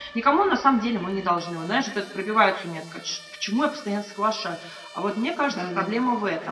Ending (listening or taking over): listening